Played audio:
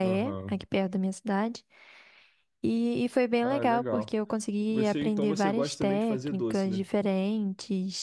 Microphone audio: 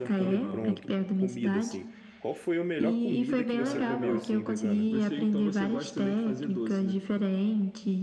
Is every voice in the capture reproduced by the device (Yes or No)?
No